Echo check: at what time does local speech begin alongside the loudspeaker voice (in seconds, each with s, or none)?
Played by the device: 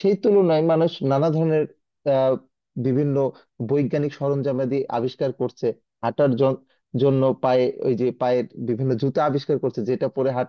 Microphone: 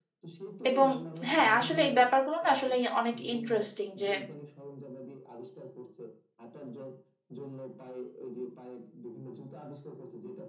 0.7 s